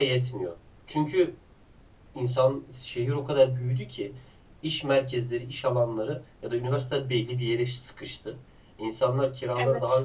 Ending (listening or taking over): listening